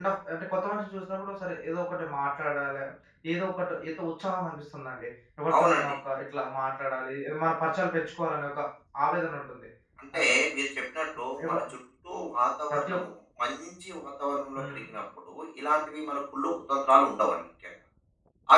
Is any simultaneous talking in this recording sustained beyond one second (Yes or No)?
No